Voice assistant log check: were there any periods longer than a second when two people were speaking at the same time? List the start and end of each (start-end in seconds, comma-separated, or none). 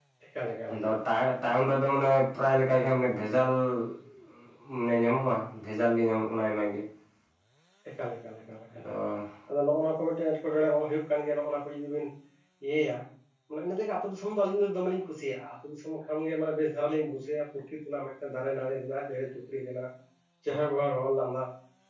none